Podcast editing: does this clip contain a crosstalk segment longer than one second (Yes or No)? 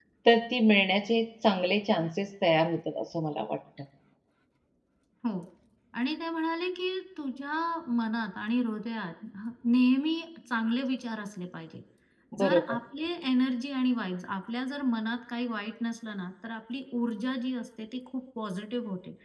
No